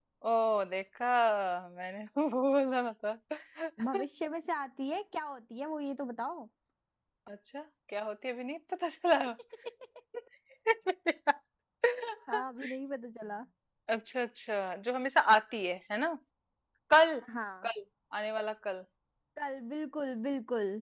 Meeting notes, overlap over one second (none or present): none